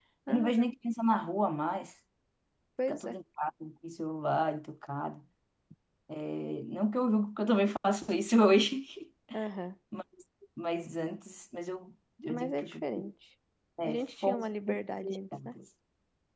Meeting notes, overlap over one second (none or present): present